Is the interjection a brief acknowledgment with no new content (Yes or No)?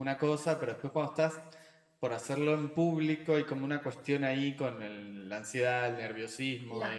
Yes